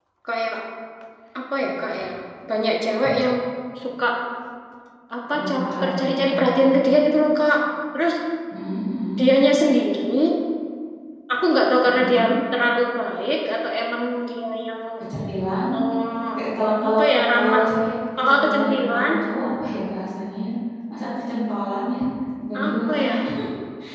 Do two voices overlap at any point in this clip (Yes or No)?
Yes